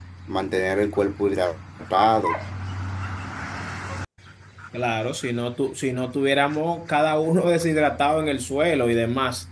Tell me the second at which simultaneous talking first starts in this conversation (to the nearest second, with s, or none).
none